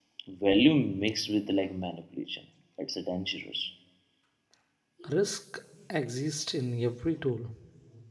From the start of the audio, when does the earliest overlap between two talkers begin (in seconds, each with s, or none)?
none